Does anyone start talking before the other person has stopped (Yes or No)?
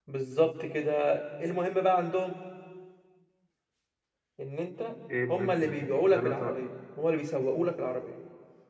Yes